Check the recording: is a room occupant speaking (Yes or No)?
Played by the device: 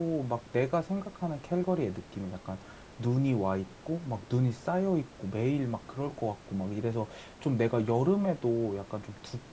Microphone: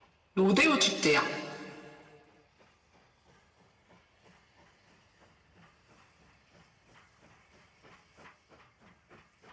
Yes